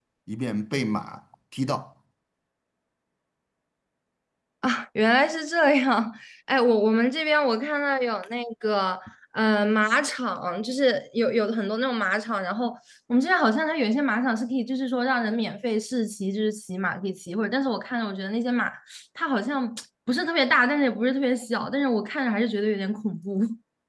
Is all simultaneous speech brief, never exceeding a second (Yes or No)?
Yes